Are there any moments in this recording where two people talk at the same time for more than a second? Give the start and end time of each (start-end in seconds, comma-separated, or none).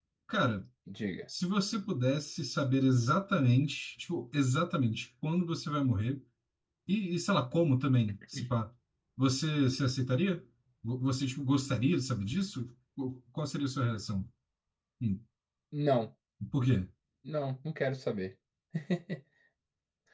none